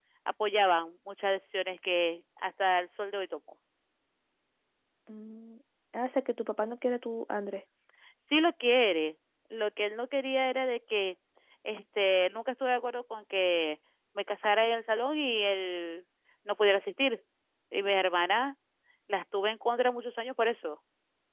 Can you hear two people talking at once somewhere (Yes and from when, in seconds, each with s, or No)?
No